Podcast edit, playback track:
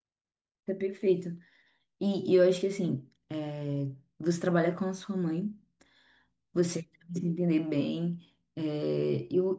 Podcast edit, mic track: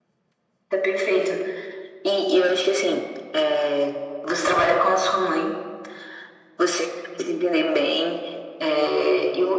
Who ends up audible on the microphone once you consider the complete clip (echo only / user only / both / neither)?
echo only